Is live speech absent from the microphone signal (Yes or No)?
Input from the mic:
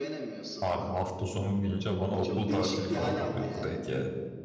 No